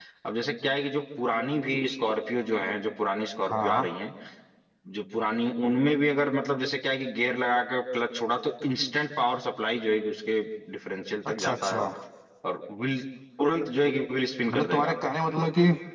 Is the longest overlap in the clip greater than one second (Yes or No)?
No